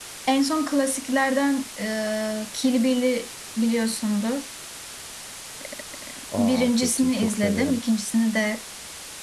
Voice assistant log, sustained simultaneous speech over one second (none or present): present